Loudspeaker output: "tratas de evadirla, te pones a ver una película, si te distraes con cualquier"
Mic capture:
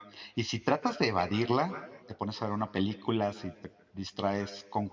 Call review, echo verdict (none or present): present